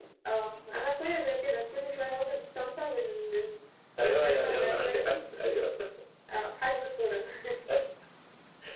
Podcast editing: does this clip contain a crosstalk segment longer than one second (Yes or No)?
Yes